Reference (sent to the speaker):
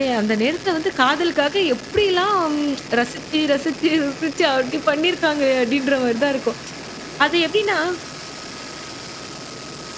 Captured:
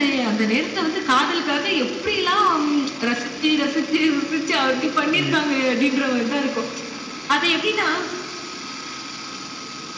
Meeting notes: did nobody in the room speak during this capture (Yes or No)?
No